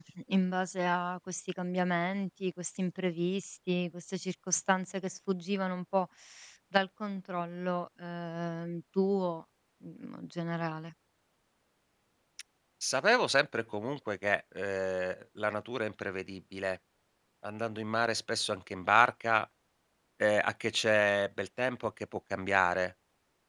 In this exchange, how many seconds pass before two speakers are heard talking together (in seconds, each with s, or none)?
none